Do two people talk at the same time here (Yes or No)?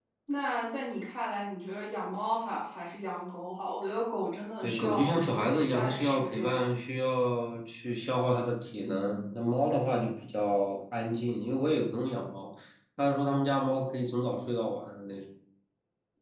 Yes